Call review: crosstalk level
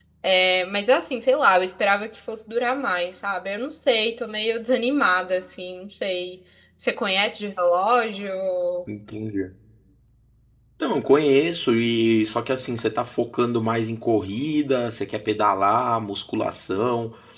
none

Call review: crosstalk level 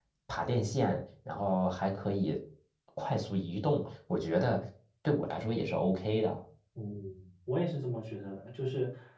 none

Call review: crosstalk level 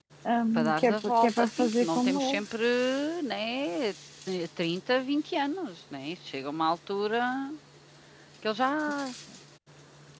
present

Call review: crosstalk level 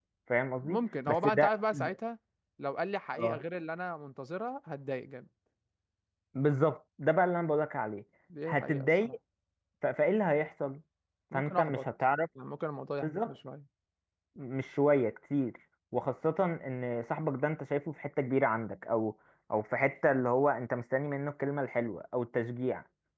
present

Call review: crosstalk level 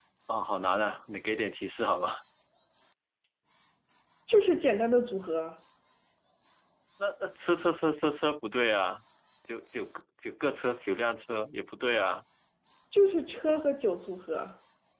none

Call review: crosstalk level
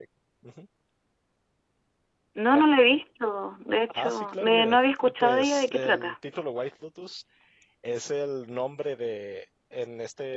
present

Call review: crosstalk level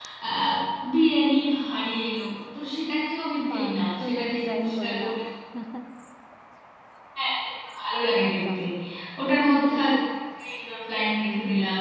present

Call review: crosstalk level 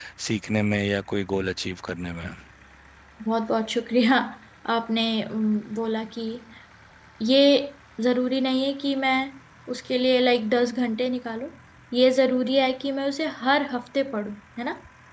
none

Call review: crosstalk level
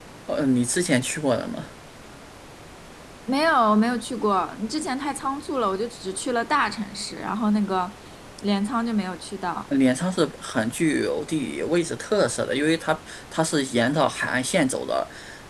none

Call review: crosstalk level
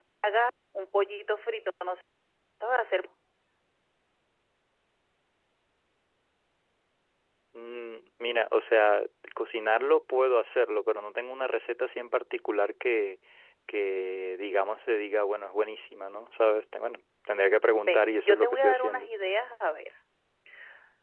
present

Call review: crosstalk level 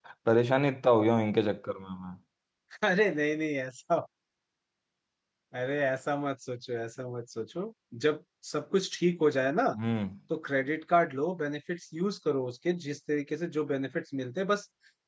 none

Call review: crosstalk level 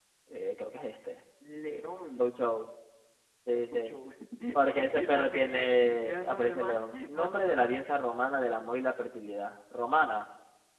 present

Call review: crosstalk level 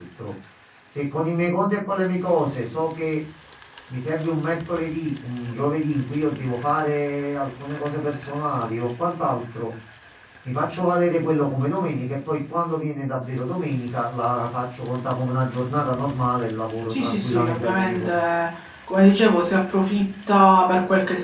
present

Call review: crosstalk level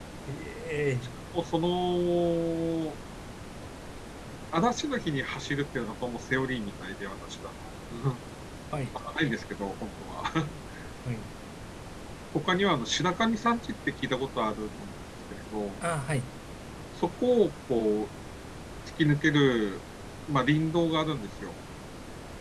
none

